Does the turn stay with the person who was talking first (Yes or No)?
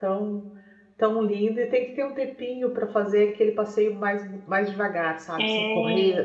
Yes